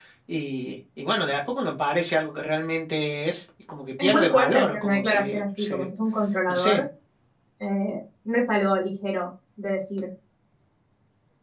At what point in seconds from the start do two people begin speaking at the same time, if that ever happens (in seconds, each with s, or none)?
4.0 s